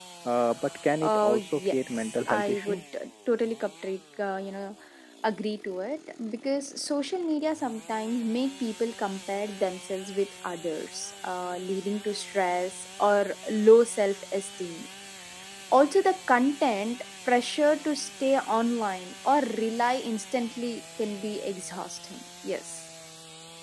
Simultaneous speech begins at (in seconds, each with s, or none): 1.0 s